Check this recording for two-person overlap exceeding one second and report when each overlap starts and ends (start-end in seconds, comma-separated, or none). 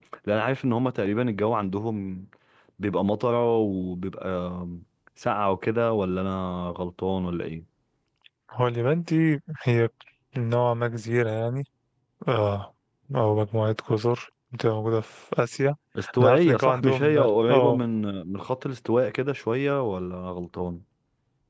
16.2-17.8